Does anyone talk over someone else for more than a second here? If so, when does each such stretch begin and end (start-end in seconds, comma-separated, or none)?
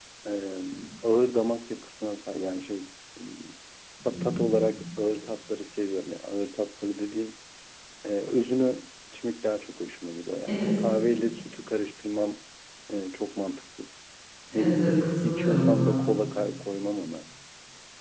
14.5-16.0